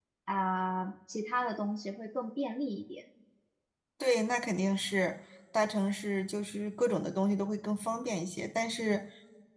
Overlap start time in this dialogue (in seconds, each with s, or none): none